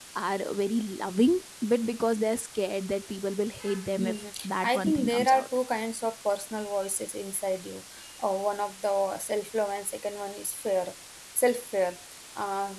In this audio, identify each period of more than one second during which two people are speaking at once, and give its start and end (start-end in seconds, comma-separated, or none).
4.0-5.5